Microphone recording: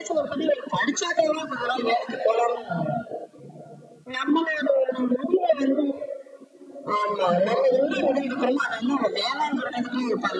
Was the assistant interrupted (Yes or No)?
No